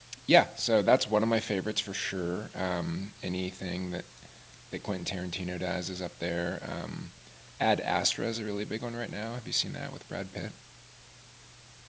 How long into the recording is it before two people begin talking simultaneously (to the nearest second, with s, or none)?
none